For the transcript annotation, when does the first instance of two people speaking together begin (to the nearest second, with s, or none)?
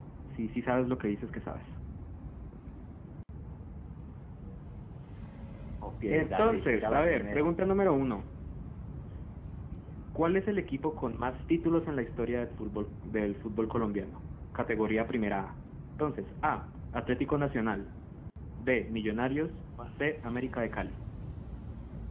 6 s